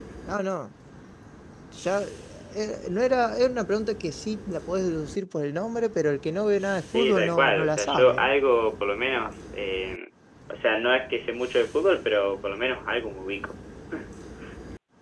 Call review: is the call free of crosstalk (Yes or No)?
No